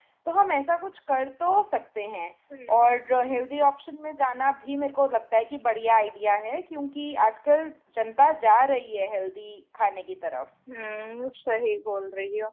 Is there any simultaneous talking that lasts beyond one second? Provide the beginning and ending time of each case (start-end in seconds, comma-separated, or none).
none